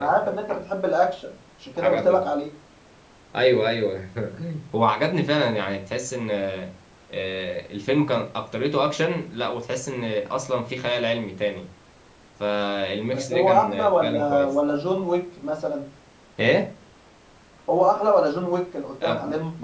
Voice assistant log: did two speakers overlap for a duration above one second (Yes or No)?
Yes